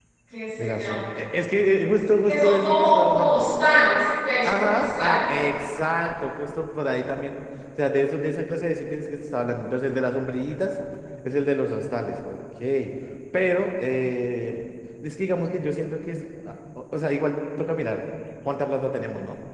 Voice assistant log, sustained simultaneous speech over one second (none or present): present